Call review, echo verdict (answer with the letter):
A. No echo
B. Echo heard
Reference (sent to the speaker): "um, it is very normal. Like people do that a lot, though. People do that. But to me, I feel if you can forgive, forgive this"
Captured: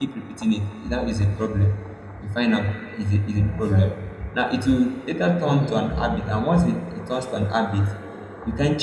A